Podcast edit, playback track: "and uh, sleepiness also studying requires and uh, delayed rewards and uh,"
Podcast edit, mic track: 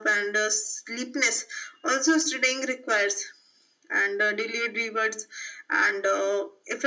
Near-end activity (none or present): none